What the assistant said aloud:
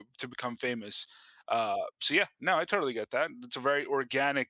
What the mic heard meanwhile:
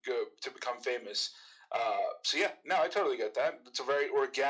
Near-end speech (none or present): none